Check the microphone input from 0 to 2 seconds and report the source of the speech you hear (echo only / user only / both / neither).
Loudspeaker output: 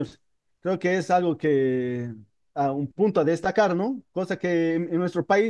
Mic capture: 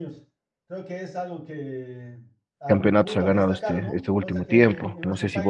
echo only